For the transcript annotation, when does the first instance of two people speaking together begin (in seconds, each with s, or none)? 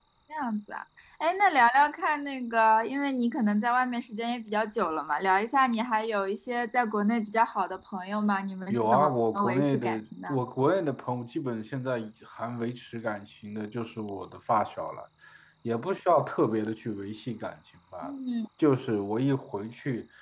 8.7 s